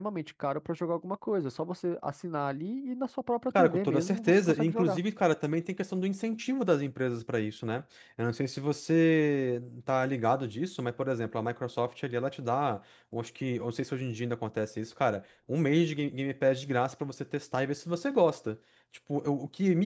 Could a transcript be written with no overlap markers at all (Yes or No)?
No